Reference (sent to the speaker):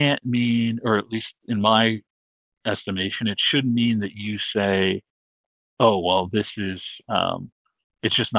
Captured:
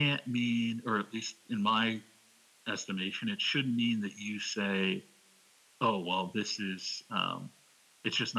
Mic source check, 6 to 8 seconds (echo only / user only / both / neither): echo only